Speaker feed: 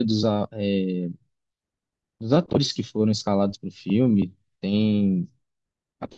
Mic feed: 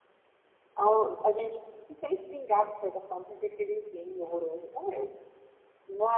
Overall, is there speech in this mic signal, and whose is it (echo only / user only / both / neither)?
user only